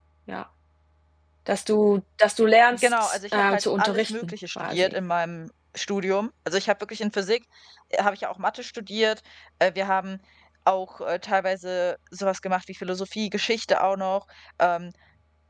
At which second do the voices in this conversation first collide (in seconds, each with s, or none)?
2.7 s